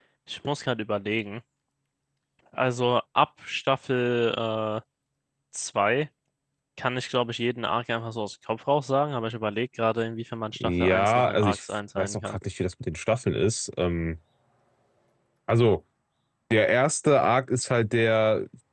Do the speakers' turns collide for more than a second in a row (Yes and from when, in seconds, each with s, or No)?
Yes, from 10.5 s